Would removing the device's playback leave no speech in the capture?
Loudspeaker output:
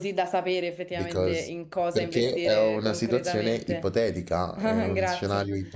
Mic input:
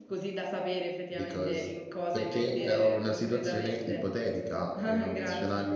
No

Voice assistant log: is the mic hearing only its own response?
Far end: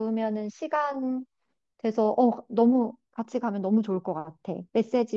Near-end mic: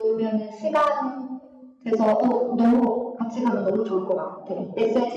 Yes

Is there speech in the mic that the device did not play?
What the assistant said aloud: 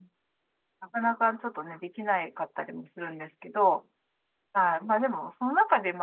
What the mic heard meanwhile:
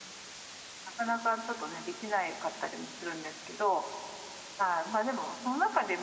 No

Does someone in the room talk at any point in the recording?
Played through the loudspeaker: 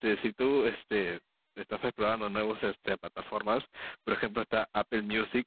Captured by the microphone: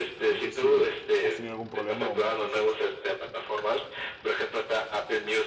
Yes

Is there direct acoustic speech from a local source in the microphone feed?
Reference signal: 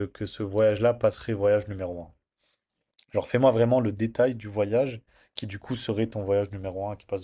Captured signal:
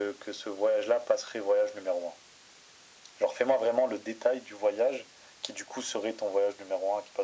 No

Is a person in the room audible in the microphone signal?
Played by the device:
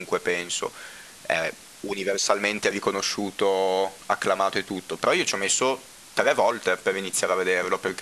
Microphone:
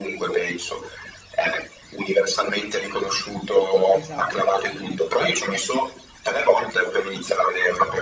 Yes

